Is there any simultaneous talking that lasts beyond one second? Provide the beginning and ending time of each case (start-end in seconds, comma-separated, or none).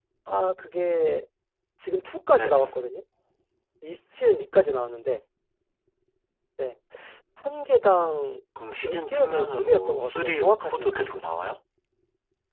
8.8-10.2